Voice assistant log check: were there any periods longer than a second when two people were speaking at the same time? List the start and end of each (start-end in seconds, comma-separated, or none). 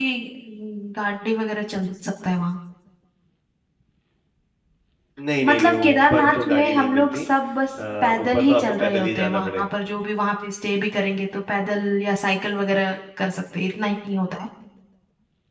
5.4-7.2, 8.0-9.6